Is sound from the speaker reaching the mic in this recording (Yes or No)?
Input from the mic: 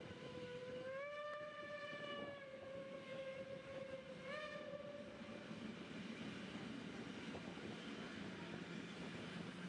No